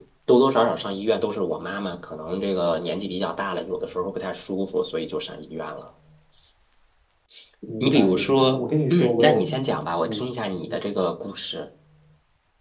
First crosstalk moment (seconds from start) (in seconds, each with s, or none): 7.8 s